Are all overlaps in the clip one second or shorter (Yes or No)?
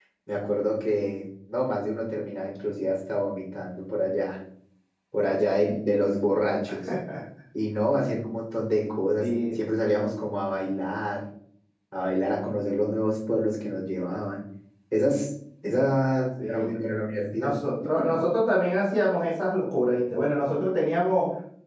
Yes